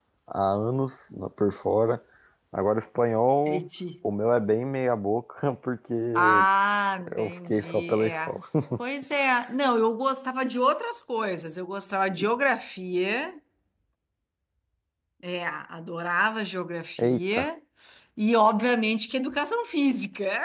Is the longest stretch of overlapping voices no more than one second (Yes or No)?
No